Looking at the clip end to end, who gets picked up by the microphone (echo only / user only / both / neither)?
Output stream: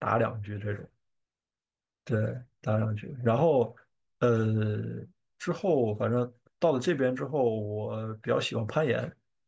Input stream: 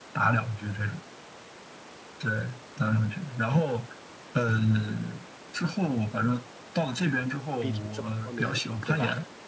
both